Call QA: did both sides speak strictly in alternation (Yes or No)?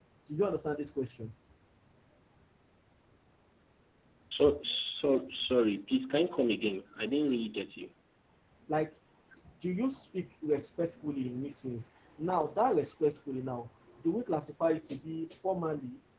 Yes